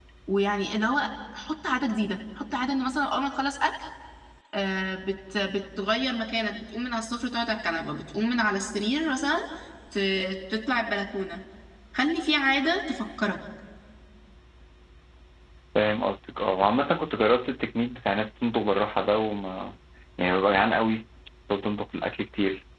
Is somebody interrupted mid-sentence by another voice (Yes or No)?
No